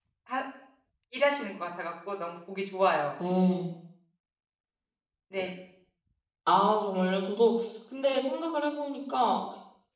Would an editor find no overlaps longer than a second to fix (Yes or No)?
Yes